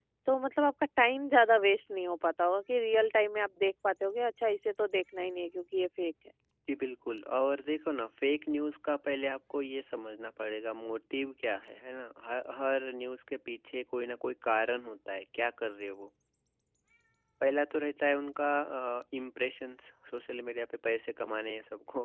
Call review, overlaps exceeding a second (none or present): none